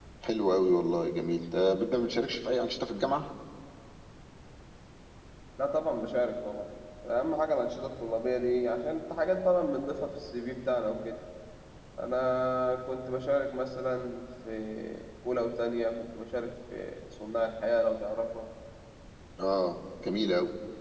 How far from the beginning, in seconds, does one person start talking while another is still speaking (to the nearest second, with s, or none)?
none